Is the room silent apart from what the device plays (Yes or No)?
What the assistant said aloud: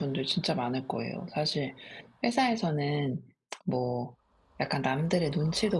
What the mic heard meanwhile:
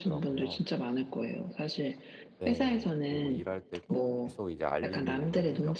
No